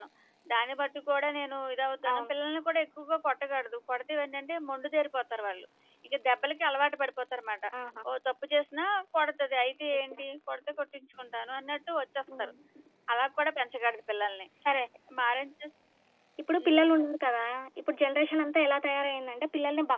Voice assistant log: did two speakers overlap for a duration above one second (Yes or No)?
No